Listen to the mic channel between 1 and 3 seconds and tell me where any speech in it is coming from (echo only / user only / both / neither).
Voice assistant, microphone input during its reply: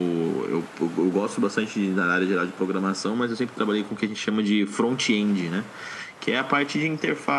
echo only